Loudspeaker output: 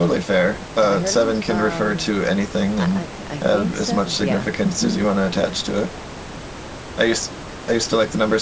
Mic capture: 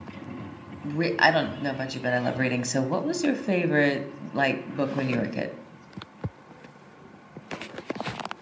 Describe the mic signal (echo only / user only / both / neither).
user only